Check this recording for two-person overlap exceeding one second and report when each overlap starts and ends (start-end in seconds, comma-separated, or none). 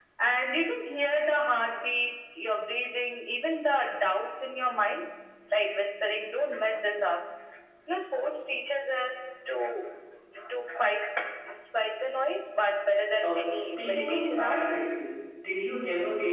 13.2-14.6